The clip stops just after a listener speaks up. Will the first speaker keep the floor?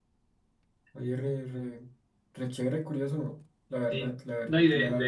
No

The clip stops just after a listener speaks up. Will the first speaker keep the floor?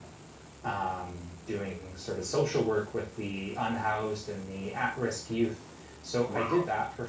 Yes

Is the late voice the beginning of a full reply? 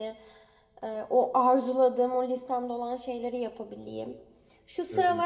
No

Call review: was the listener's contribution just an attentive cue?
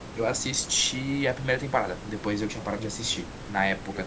Yes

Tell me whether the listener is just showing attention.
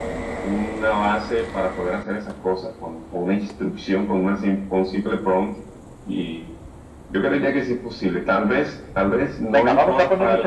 No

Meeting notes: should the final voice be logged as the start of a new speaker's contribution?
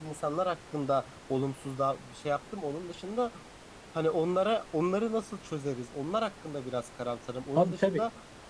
No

